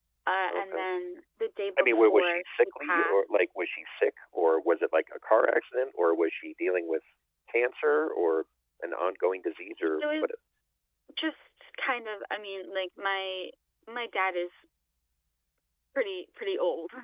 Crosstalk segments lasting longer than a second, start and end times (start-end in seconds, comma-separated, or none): 1.8-3.2